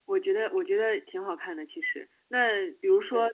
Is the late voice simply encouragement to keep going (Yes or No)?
Yes